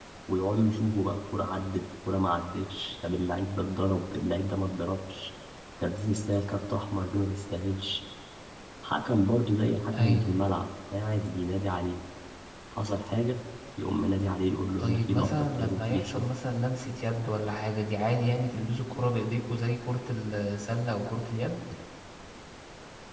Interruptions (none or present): present